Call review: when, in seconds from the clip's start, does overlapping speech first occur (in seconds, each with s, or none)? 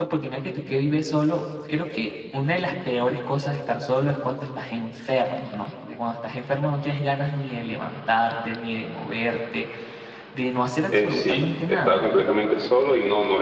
10.9 s